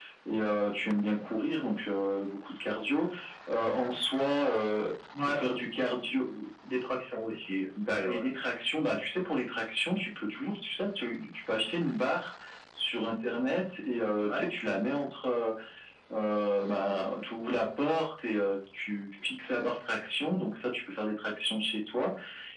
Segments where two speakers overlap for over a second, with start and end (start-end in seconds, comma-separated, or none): none